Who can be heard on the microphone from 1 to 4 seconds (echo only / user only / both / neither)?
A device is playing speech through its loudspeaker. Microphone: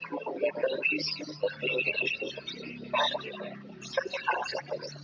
echo only